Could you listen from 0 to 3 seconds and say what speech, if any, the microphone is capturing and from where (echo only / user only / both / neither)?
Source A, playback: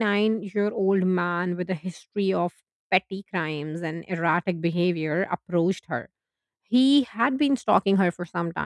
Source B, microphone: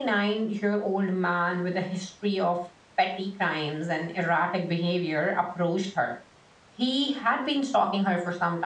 echo only